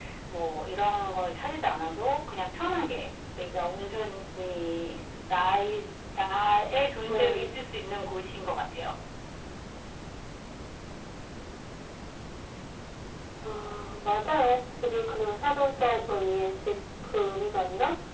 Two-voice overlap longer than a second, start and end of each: none

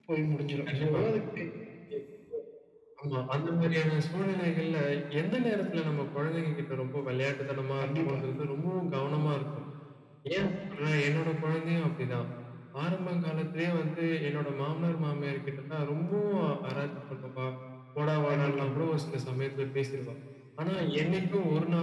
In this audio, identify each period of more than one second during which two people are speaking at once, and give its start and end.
none

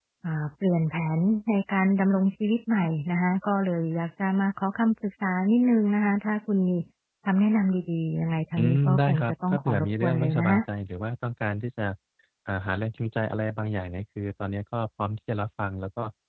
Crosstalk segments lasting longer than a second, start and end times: 8.6-10.6

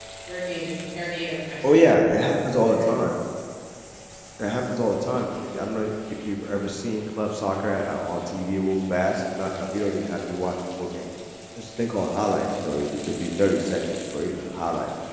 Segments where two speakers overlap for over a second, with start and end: none

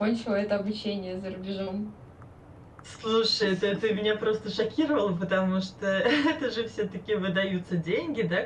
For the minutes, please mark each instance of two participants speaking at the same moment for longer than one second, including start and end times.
none

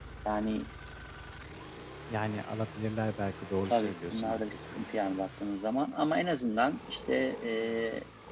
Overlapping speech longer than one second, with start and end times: 3.6-4.9

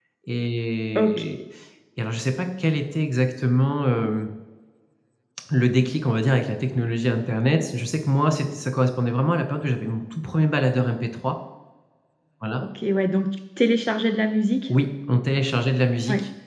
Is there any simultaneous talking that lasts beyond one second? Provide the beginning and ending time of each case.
none

